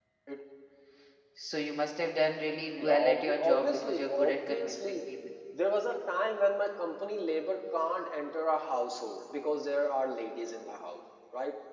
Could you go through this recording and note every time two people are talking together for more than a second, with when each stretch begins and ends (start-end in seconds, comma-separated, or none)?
2.8-5.0